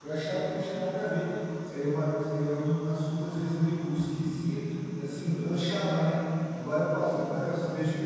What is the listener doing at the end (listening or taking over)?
listening